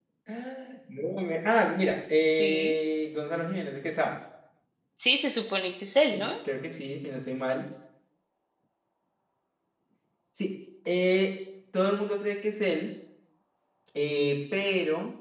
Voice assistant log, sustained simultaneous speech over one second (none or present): none